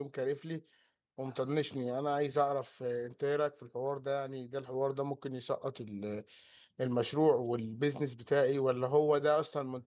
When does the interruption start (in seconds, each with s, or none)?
none